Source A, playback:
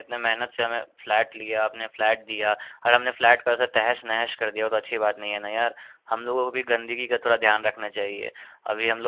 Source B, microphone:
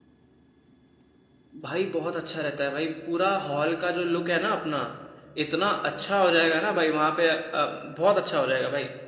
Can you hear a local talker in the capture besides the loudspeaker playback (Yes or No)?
Yes